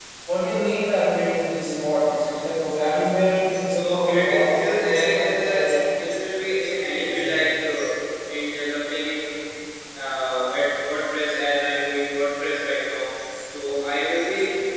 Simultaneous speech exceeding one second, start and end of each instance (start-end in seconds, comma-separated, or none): 3.7-5.5